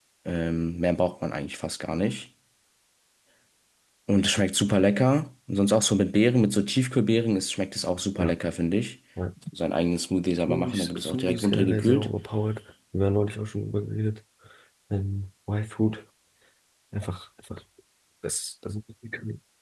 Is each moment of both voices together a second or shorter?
No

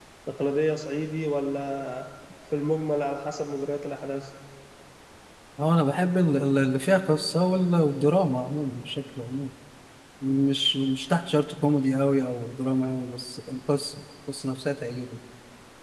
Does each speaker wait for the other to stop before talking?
Yes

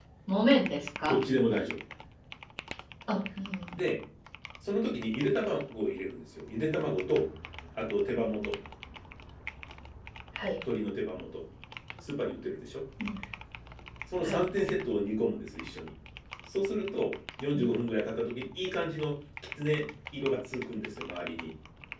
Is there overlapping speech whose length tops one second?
No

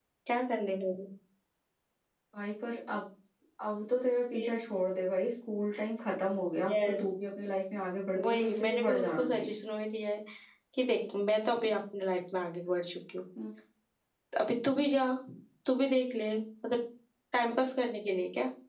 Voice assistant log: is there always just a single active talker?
No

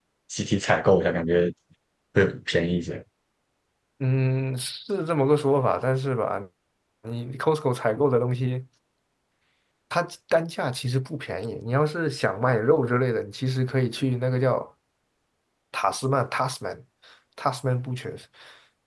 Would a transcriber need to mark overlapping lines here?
No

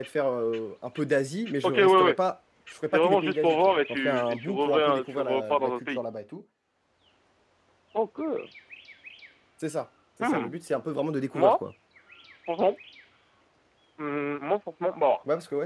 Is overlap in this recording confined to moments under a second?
No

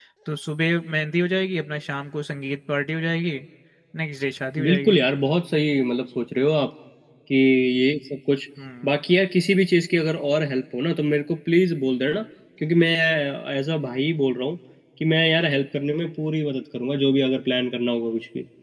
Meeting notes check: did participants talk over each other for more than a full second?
No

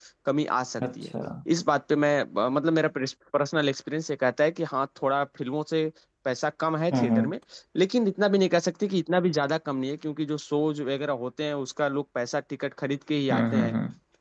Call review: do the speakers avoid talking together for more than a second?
Yes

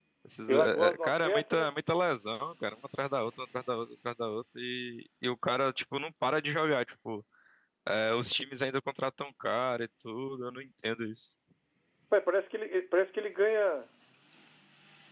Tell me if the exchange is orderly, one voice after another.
No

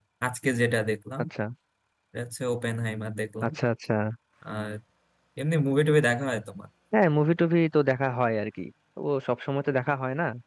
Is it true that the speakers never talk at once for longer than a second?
Yes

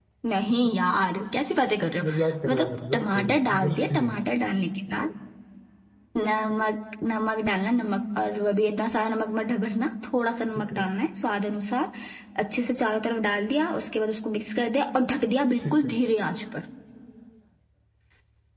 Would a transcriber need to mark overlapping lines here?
Yes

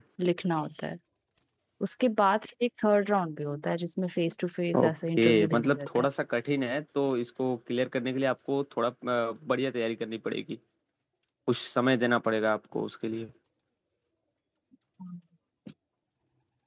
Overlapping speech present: Yes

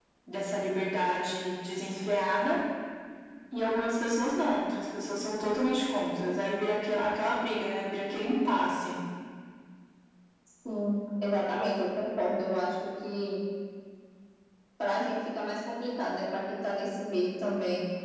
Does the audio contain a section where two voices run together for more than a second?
No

